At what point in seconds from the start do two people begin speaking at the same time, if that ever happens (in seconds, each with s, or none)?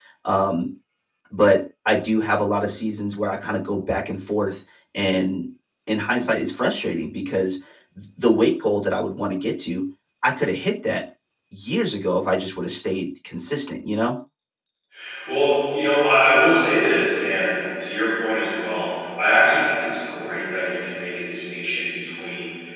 none